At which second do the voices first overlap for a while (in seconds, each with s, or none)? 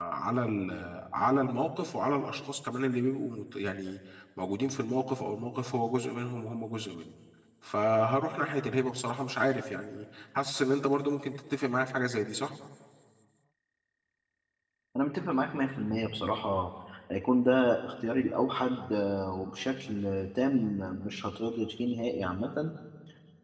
none